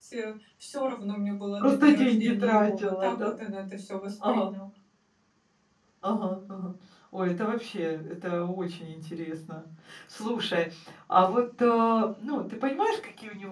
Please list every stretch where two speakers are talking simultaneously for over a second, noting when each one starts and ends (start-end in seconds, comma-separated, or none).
1.6-3.3